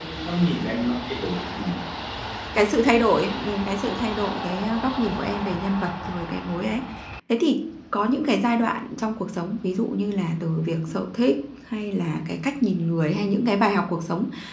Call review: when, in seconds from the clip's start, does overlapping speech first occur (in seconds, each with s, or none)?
none